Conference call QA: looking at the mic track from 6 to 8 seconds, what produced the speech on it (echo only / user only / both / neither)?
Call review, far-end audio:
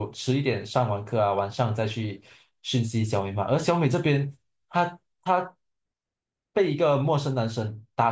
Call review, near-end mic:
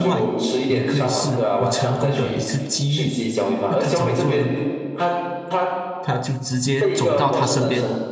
both